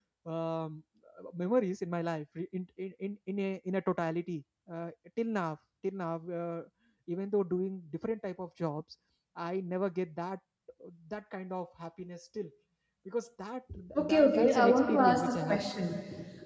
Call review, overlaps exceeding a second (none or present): present